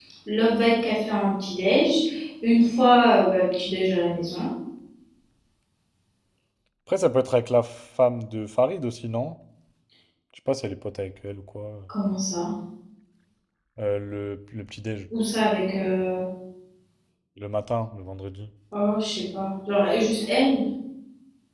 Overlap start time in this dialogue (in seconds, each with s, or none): none